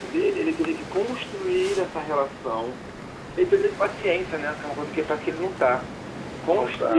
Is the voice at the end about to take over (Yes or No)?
No